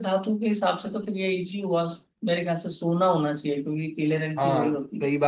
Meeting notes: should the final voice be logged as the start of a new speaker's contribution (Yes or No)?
Yes